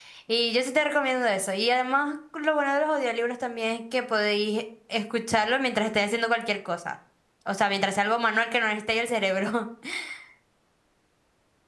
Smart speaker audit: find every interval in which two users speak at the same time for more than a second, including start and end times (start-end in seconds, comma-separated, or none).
none